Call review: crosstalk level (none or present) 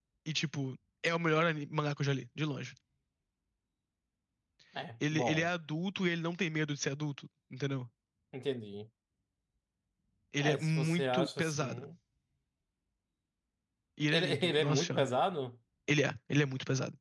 present